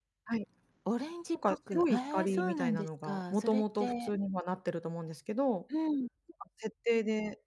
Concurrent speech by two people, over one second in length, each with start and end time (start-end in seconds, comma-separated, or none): 1.3-4.1